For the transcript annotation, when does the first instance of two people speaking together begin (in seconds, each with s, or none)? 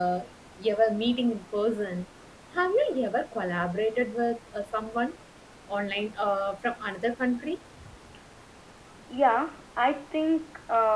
none